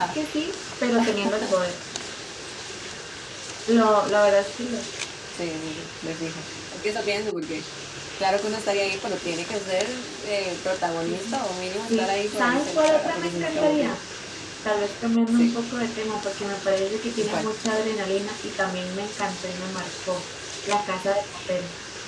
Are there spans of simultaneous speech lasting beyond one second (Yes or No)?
Yes